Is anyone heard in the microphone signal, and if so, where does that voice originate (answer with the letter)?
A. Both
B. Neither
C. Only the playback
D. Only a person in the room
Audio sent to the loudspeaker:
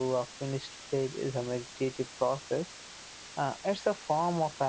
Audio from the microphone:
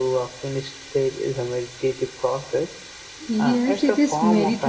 A